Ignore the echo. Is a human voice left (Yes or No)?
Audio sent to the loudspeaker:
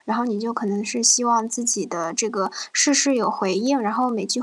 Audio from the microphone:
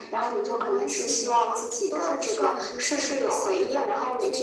Yes